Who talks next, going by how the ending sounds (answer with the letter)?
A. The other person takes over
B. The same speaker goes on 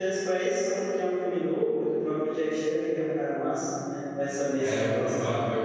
A